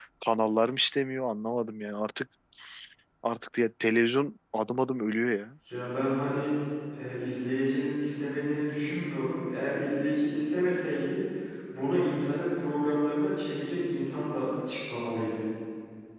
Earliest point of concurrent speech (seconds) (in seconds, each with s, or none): none